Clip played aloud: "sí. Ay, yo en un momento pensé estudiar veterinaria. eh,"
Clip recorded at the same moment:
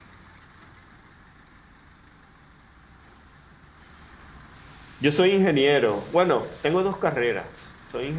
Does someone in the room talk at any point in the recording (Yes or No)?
Yes